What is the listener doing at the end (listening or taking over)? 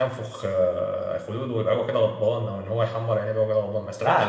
taking over